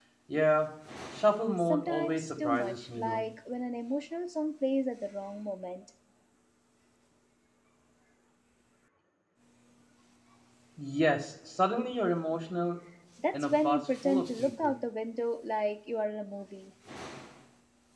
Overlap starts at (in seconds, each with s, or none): 1.6 s